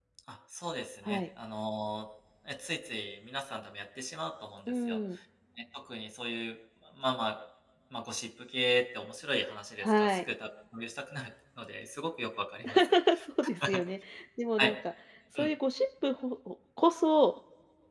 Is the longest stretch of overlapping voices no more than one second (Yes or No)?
Yes